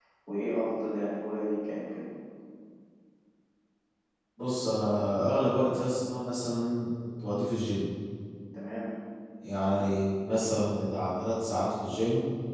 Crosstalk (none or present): none